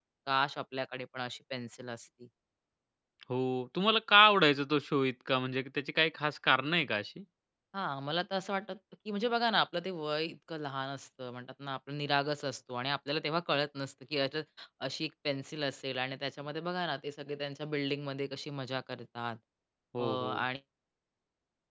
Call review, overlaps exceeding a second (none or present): none